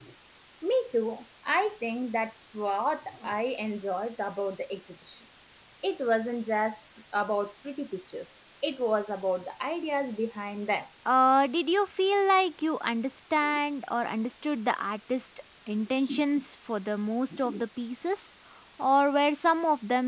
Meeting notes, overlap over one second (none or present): none